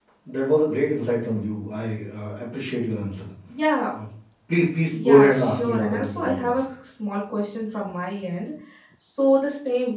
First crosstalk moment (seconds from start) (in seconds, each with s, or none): 4.9 s